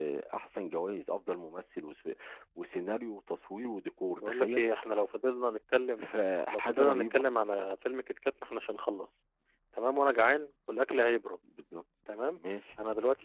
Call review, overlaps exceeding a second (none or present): present